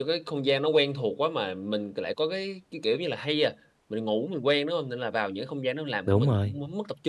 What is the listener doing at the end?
listening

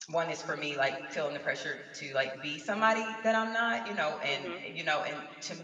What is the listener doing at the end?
listening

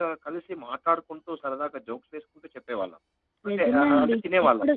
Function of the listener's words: taking over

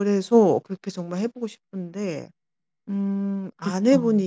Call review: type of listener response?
listening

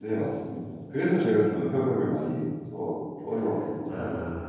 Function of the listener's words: taking over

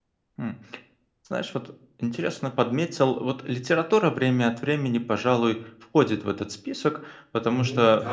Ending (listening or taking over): taking over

